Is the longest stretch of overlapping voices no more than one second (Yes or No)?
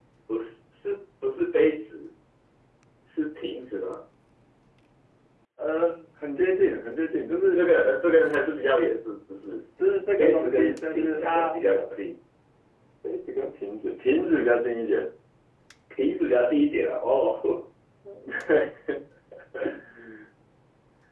No